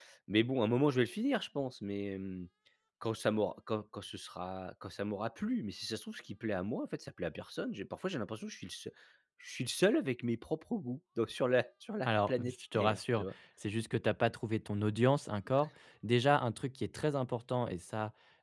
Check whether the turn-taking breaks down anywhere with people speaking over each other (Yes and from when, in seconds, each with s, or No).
Yes, from 12.1 s